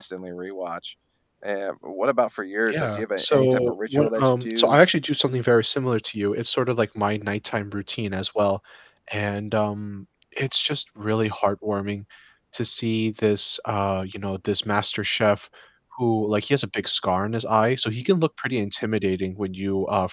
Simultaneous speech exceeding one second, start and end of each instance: 2.7-4.8

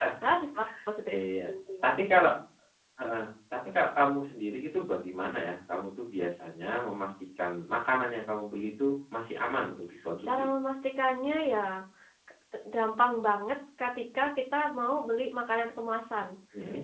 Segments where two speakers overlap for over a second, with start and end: none

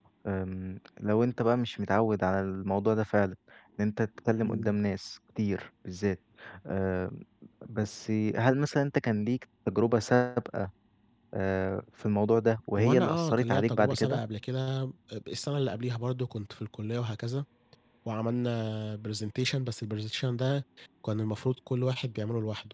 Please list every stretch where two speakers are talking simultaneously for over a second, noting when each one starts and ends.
12.8-14.2

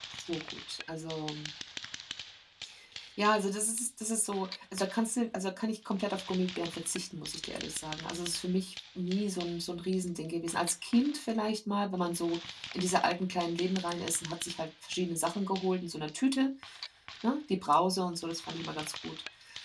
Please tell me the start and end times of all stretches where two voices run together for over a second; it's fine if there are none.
none

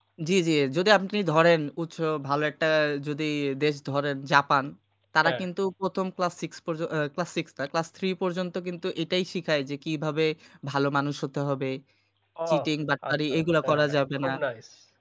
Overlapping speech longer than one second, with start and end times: 13.1-14.3

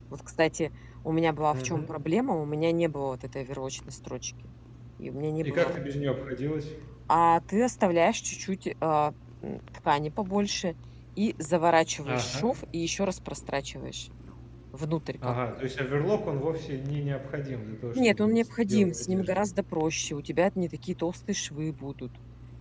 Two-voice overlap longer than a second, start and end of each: 17.9-19.4

